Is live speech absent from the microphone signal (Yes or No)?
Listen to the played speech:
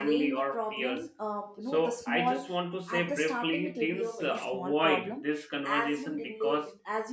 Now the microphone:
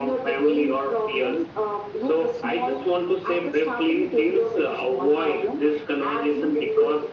Yes